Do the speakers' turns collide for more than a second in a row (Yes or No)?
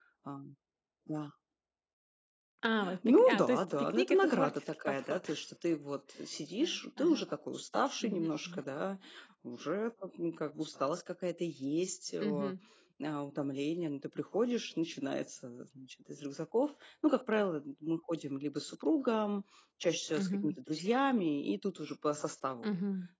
Yes